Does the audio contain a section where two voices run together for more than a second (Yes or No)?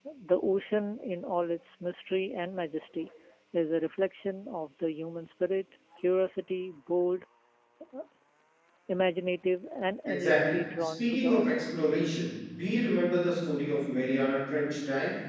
Yes